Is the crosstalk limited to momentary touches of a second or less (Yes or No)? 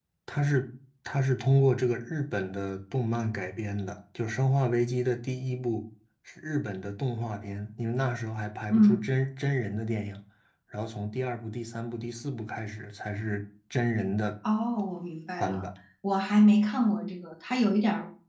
Yes